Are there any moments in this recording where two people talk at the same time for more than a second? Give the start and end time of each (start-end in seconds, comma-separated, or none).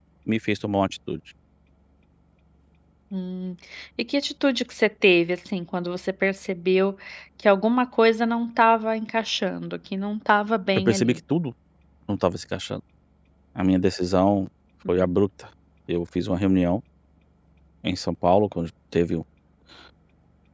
none